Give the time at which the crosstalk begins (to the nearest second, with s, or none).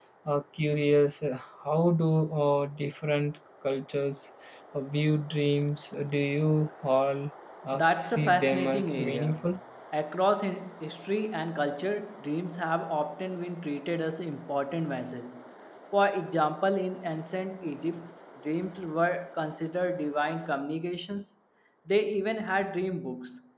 8 s